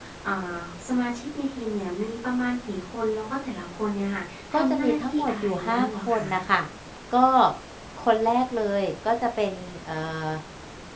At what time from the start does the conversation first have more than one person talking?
5 s

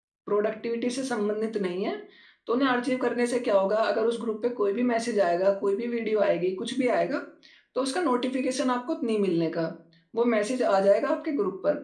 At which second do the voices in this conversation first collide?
none

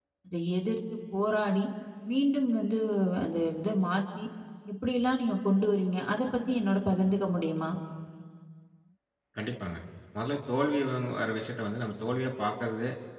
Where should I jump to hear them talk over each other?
none

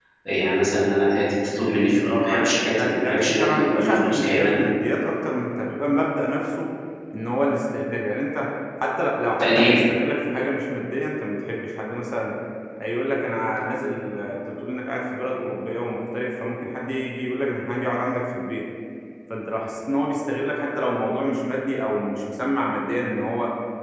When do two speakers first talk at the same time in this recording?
2 s

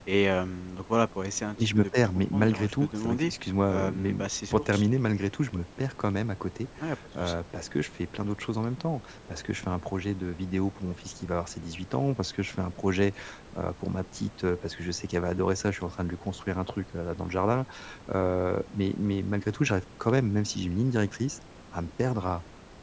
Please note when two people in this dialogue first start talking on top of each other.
2 s

